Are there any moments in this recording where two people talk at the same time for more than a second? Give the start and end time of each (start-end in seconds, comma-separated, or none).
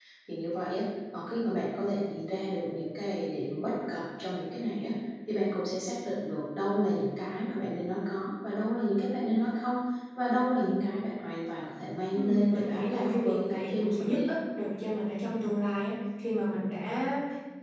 12.1-14.2